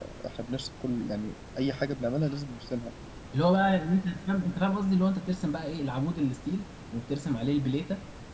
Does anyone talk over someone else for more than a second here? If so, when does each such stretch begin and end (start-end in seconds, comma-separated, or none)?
none